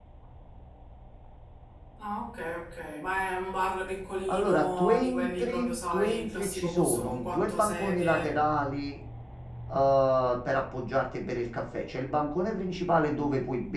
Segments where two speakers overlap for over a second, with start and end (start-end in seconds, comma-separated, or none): 4.3-8.4